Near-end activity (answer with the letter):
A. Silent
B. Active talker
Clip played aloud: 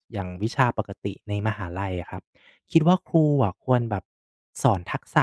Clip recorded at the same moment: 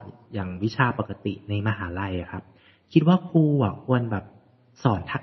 A